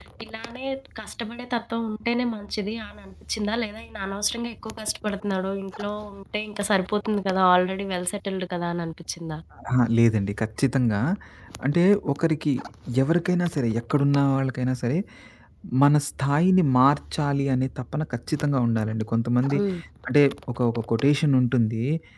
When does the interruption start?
none

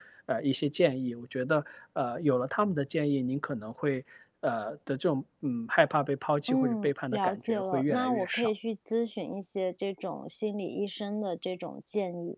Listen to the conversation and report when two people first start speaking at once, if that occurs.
6.5 s

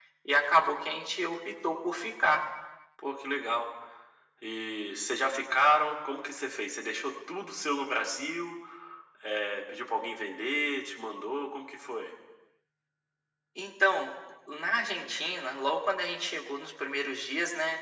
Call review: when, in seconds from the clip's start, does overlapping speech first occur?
none

